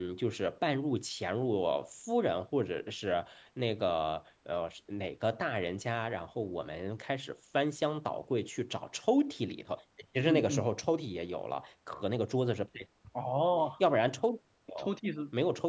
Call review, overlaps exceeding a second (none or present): none